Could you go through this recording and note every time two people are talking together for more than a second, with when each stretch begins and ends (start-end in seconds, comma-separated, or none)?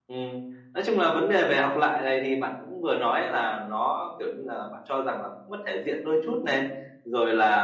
none